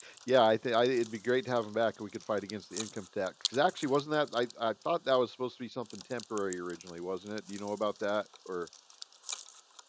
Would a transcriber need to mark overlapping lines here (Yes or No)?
No